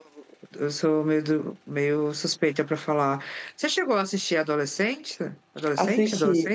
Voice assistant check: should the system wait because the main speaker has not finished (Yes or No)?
No